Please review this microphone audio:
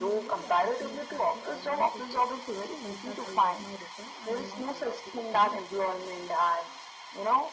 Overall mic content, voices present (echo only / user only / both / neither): both